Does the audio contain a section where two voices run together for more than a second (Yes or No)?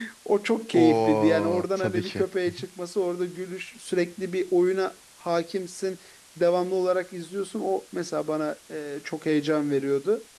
Yes